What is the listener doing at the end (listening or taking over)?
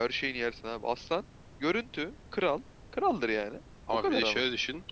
taking over